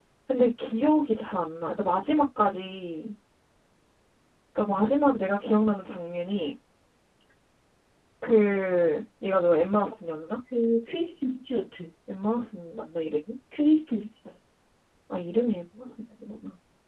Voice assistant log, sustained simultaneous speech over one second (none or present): none